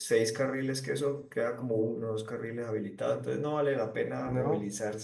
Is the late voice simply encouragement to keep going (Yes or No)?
Yes